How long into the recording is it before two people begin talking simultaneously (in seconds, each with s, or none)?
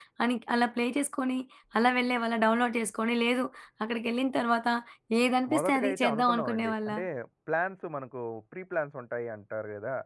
5.5 s